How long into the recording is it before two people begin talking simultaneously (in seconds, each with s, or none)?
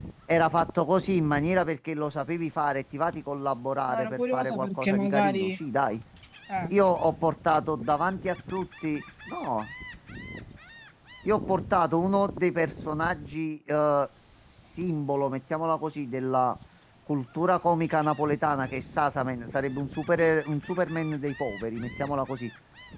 3.9 s